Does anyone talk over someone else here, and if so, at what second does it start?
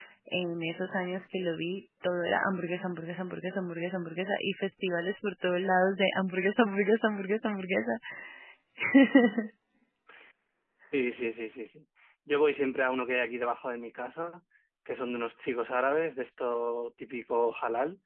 none

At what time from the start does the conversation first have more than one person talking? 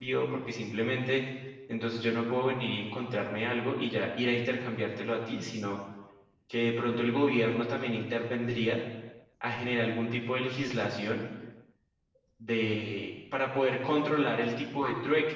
none

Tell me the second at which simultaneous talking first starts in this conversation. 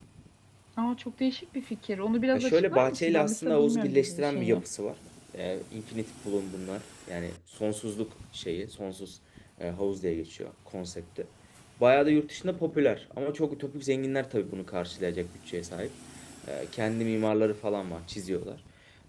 2.3 s

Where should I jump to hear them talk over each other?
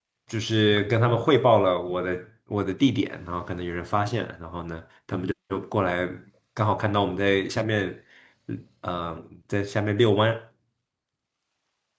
none

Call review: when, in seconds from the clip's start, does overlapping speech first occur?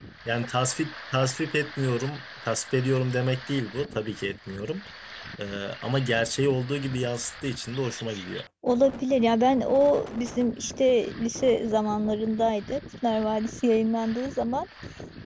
none

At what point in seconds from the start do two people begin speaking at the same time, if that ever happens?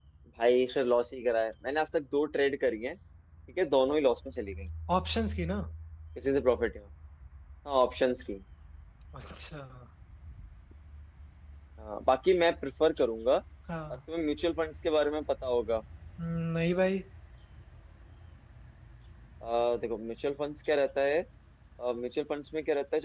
none

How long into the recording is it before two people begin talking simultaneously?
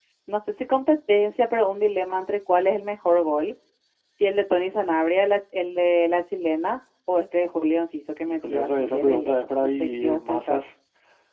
8.4 s

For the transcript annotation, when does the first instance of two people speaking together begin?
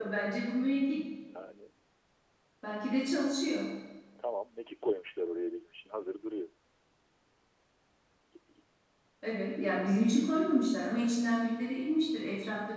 none

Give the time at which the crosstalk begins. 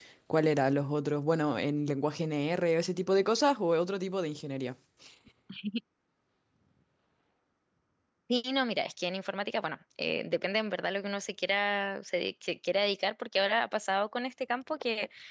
none

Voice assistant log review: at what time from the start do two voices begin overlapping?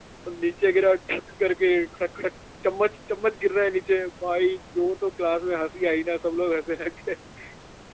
none

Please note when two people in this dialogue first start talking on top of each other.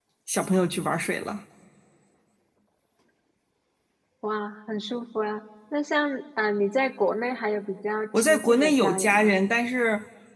8.1 s

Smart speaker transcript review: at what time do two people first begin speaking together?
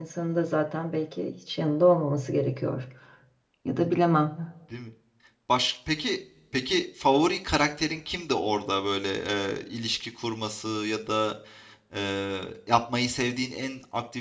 none

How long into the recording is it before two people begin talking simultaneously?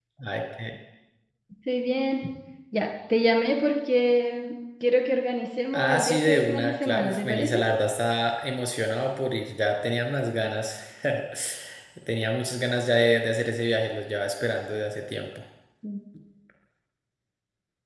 5.7 s

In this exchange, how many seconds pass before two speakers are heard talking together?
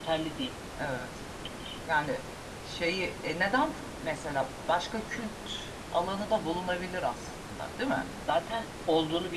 none

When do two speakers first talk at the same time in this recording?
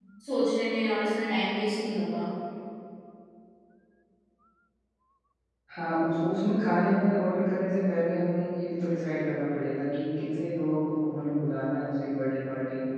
none

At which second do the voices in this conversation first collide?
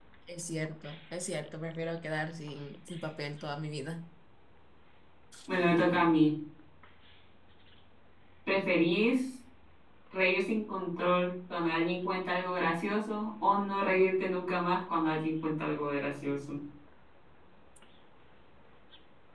none

